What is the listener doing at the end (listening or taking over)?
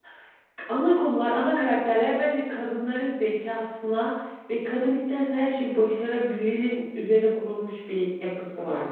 taking over